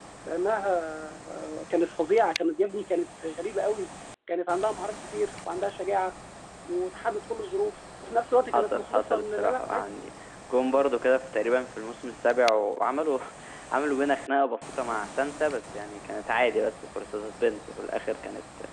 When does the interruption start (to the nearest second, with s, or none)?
9 s